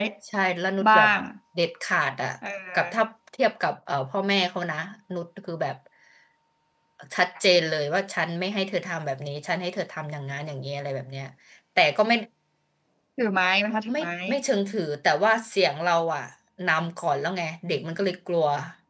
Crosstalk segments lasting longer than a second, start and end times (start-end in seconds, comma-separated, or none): none